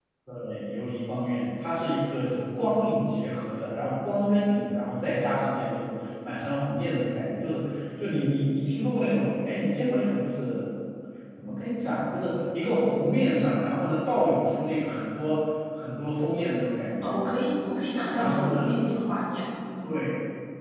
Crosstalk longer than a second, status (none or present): none